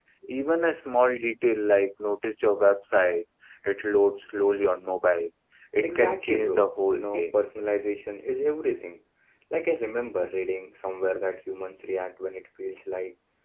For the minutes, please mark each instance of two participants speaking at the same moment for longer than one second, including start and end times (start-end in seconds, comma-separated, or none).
5.8-7.4